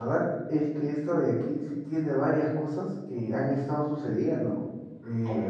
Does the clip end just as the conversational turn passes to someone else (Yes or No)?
No